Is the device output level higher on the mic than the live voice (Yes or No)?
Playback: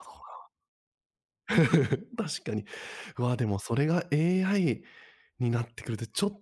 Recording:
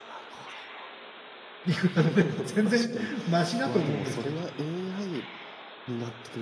No